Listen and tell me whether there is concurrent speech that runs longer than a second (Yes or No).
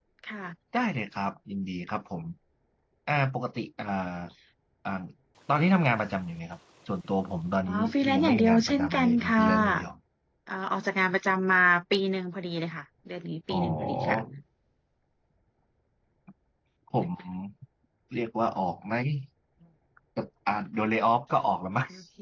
Yes